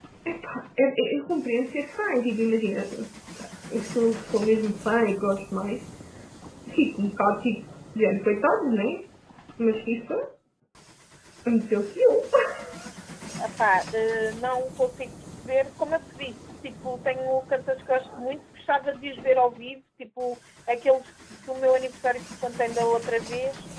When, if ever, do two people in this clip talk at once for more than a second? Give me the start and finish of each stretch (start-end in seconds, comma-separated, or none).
none